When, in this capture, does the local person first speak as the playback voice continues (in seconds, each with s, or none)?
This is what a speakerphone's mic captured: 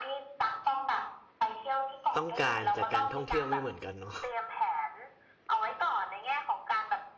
2.2 s